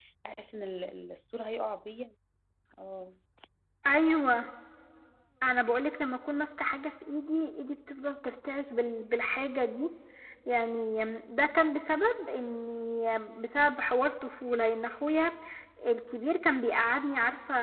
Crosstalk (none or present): none